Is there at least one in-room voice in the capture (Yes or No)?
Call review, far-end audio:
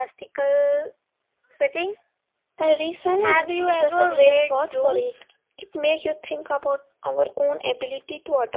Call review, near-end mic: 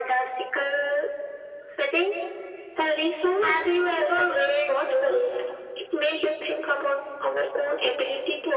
No